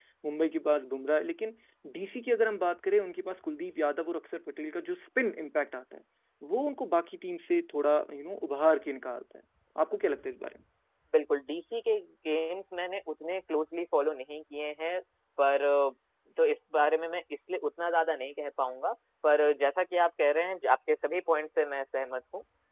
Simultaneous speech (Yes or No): No